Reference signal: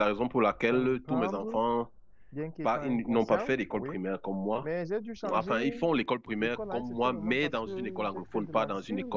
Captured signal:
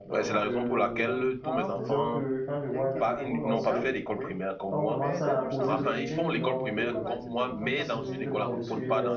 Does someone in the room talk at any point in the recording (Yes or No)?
Yes